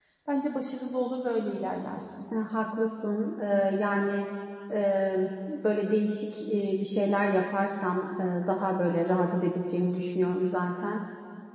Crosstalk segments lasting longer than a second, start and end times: none

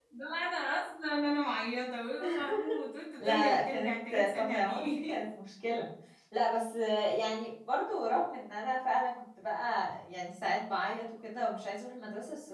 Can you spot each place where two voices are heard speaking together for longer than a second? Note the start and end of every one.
3.2-5.2

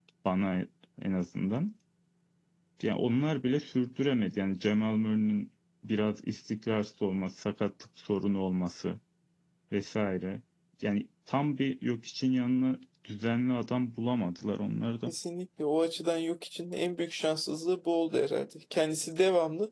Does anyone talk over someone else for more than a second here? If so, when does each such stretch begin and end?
none

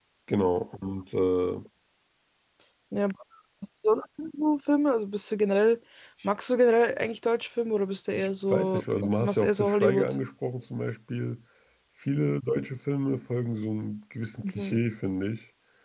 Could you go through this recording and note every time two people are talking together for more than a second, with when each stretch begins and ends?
8.2-10.1

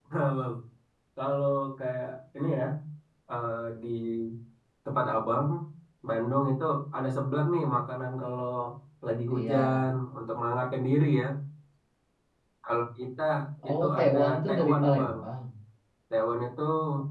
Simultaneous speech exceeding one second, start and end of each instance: 13.7-15.2

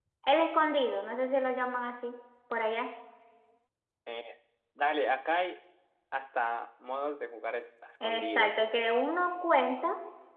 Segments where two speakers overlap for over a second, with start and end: none

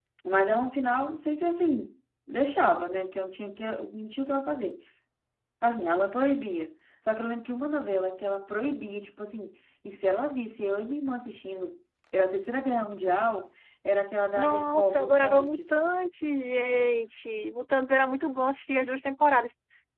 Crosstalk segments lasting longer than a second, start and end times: 14.3-15.8

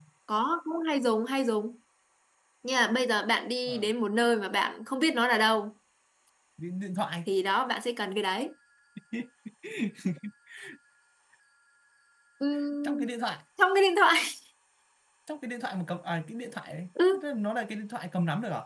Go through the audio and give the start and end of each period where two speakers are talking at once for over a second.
none

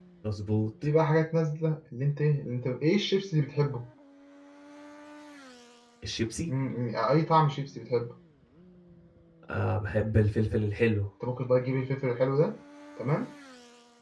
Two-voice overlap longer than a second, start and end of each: none

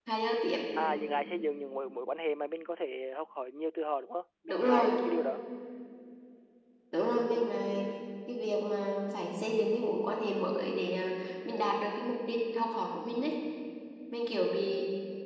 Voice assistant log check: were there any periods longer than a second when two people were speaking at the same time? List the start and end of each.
none

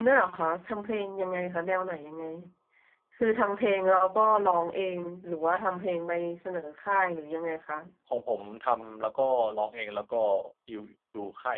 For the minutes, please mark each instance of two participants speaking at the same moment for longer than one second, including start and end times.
none

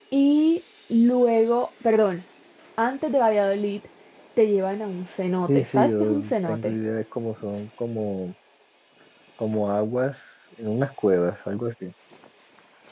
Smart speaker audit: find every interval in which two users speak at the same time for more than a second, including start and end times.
5.5-6.7

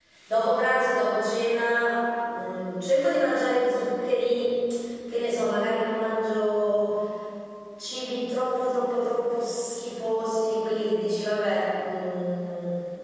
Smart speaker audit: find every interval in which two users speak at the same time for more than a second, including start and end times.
none

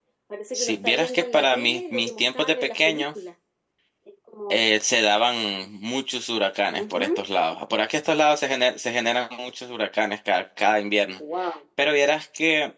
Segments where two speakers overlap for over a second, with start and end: 0.5-3.1

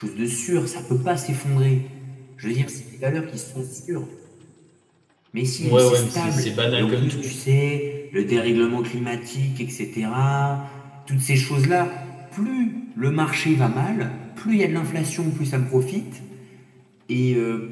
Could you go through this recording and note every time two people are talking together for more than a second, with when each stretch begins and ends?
5.6-7.4

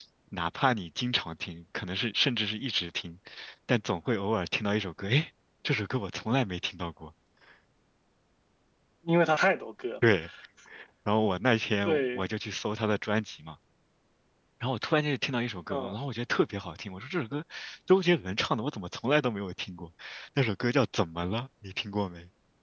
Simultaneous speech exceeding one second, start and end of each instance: none

